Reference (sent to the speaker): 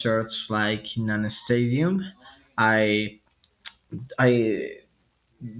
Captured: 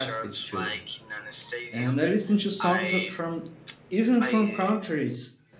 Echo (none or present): present